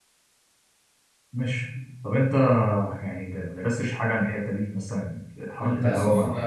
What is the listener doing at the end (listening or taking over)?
taking over